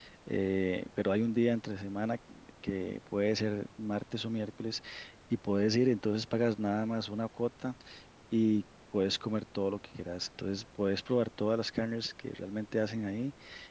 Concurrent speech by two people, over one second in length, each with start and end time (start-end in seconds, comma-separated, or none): none